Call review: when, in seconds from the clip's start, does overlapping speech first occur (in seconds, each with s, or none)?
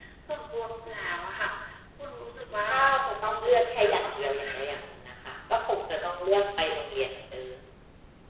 2.7 s